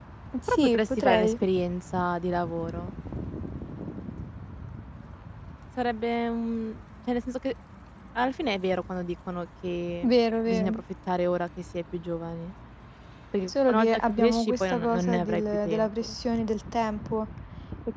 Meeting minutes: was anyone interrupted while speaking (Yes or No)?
Yes